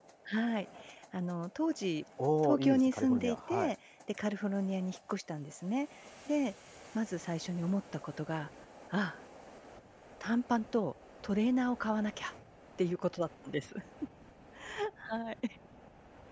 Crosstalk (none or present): present